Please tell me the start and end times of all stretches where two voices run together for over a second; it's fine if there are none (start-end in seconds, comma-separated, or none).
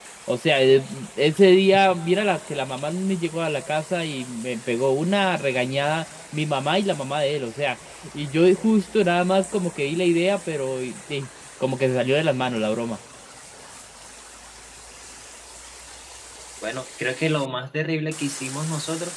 none